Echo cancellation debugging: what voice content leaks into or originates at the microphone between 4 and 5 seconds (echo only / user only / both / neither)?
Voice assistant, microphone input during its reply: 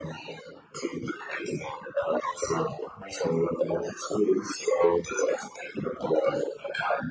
echo only